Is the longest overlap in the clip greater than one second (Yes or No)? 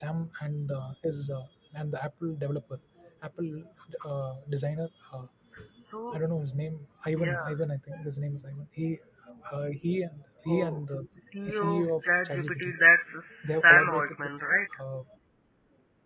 Yes